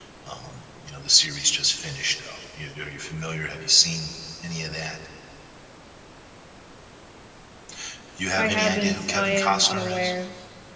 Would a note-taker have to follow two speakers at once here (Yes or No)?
Yes